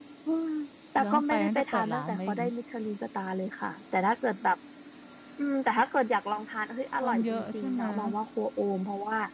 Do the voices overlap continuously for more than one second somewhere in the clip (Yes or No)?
Yes